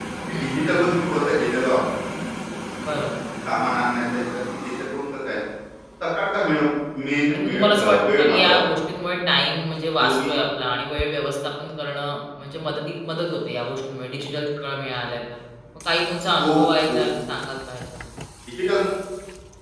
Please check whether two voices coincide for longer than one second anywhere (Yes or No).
Yes